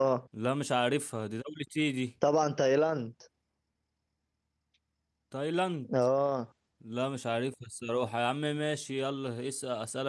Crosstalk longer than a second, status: none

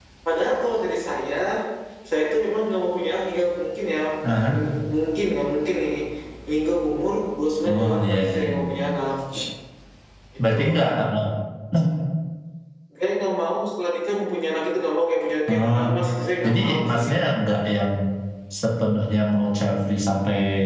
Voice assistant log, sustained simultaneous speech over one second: present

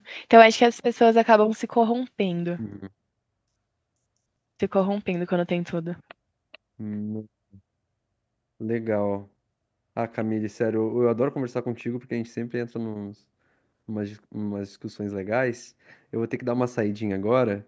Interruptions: none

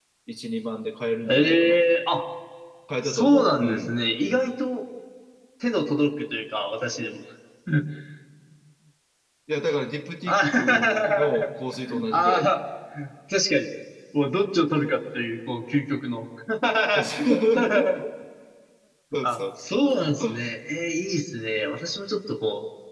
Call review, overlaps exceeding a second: present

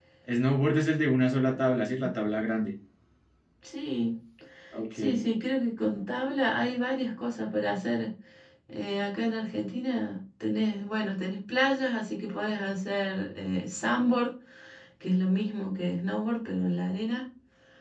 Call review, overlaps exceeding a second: none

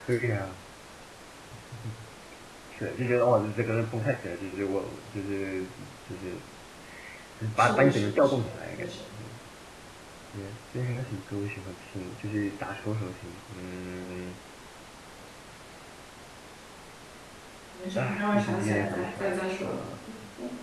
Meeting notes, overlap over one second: present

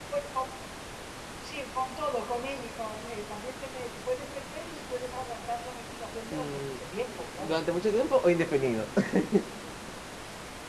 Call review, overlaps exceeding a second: none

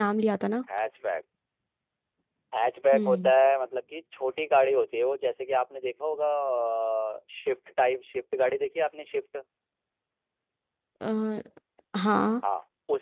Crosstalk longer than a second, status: none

